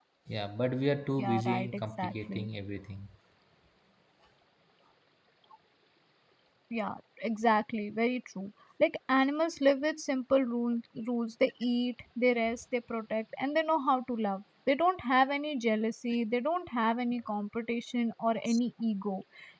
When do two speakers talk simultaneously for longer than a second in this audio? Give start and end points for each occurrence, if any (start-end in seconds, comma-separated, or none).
1.2-2.5